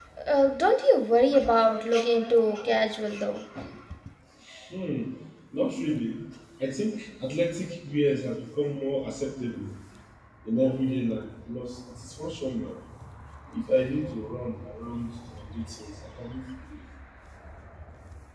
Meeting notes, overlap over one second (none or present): none